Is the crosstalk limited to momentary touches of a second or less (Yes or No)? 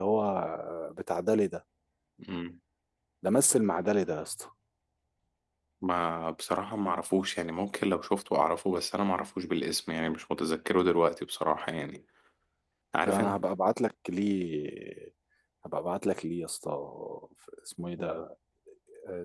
Yes